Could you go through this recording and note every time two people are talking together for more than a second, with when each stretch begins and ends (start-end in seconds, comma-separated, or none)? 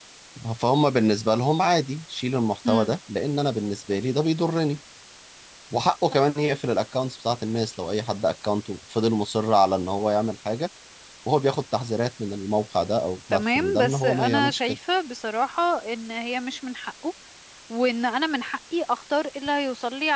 13.3-14.8